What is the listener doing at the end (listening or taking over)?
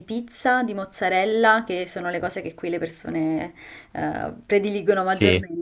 listening